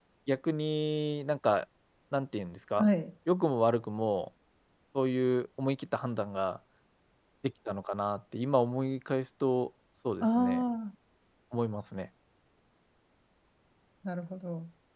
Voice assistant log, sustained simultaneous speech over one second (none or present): none